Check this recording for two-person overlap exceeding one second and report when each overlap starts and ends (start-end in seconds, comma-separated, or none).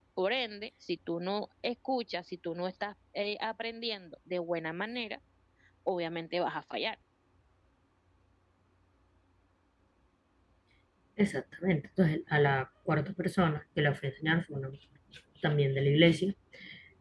none